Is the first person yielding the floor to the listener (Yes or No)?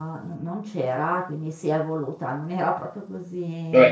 Yes